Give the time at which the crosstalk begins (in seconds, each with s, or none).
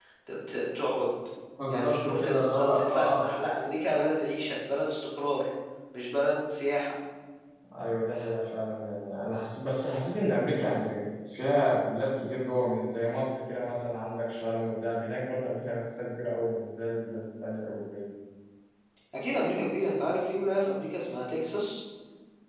1.7 s